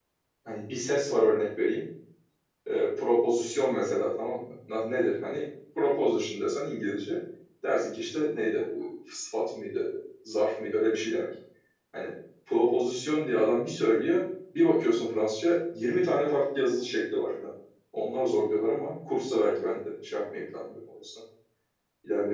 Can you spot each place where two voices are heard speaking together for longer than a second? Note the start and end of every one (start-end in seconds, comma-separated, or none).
none